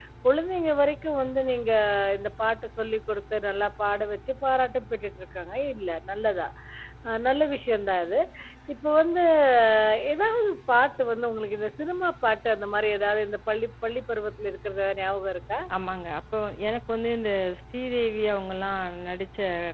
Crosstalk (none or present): none